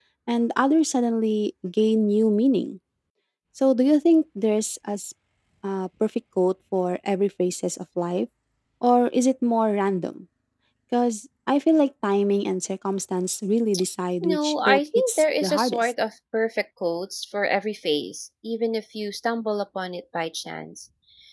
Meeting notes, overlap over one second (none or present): present